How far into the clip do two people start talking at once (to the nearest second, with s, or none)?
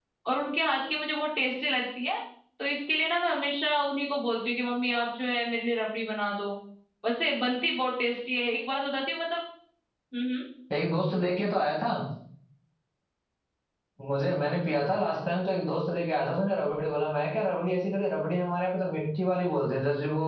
none